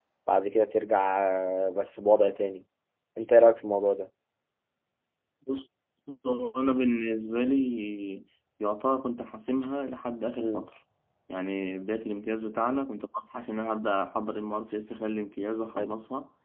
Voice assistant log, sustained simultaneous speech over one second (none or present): none